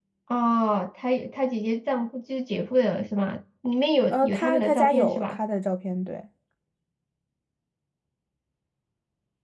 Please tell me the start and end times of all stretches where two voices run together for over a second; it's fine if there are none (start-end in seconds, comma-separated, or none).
4.1-5.4